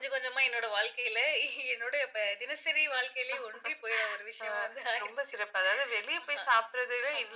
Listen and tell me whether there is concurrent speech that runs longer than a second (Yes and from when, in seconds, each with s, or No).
No